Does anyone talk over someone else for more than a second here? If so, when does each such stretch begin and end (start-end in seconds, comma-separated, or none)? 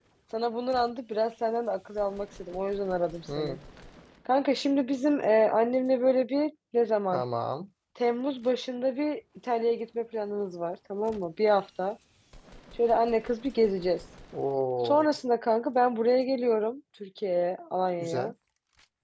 none